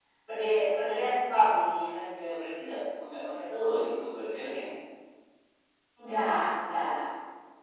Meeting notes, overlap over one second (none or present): none